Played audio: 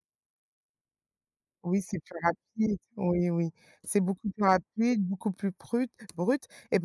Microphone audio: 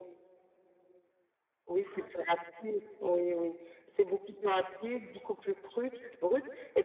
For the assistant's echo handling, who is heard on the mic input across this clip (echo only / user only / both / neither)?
both